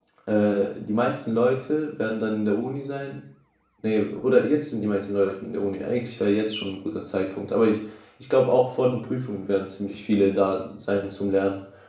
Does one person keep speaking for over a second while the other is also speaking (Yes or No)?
No